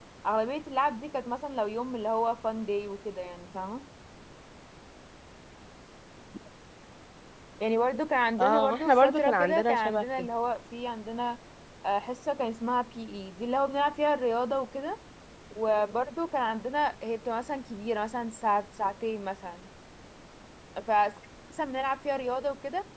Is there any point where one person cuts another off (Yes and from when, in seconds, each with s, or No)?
Yes, from 8.4 s